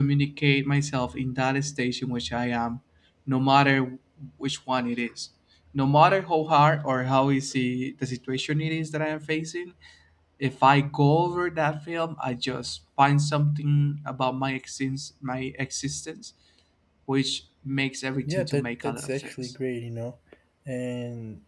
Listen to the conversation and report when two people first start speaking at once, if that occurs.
18 s

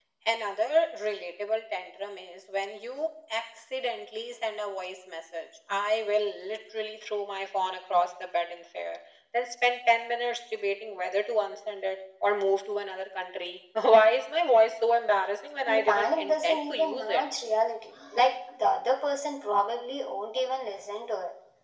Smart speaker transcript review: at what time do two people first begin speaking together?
16 s

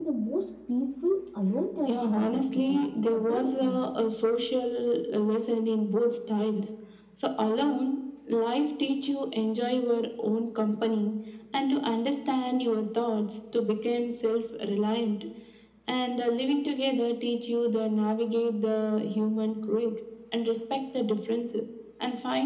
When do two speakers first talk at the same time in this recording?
2 s

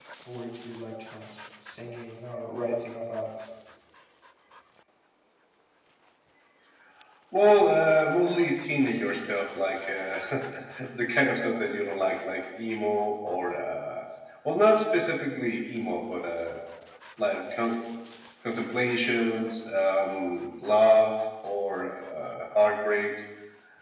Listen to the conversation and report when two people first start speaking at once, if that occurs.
none

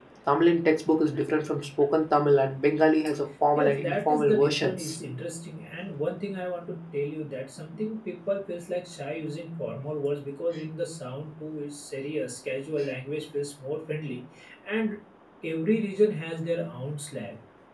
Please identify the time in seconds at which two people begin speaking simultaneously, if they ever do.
4 s

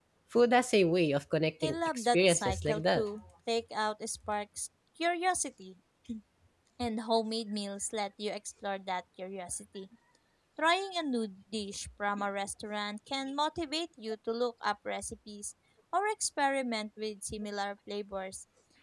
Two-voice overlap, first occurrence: 2 s

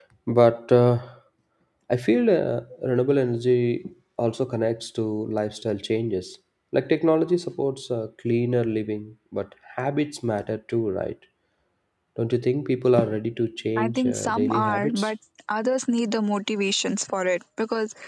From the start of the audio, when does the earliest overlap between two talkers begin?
14 s

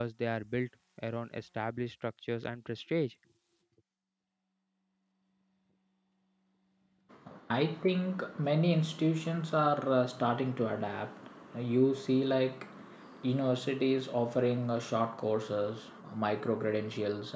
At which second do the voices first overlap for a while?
none

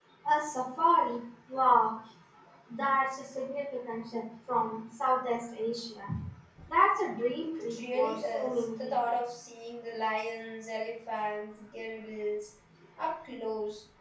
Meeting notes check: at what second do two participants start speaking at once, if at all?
8 s

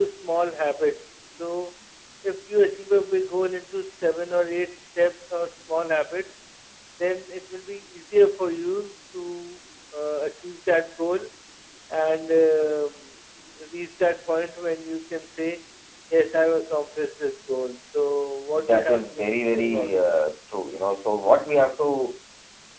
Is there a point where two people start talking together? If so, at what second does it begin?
19 s

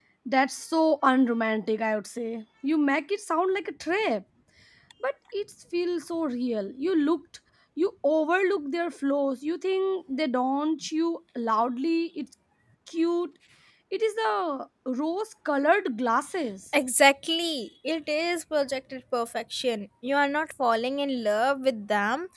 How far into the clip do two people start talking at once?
none

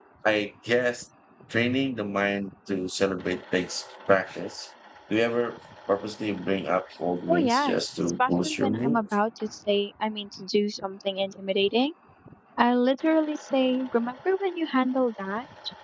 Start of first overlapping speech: 7 s

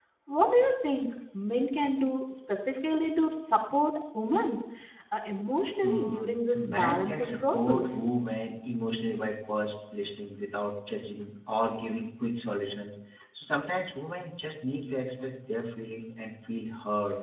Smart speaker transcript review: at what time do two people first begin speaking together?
6 s

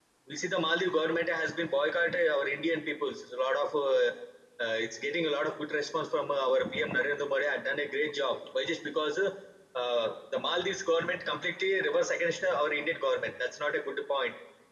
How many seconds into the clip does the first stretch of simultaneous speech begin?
none

